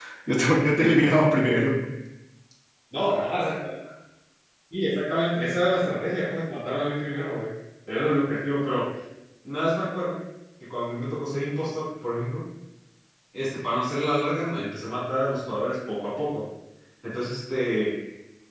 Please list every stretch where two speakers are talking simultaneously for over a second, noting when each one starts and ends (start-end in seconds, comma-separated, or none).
none